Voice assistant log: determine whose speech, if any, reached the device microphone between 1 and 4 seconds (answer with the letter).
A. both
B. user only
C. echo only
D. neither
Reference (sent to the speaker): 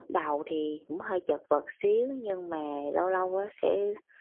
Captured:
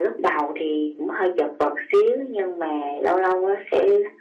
C